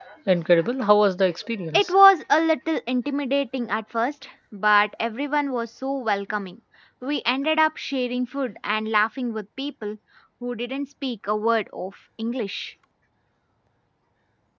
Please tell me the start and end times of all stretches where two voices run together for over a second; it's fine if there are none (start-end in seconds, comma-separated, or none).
none